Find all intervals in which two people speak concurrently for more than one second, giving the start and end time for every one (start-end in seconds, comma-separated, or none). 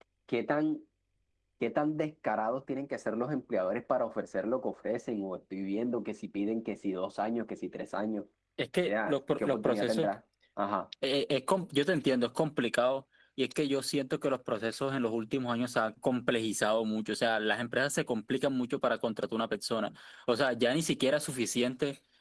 8.8-10.1